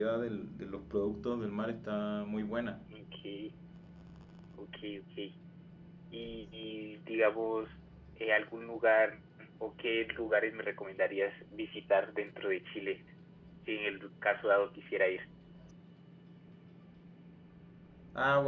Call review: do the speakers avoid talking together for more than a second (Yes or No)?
Yes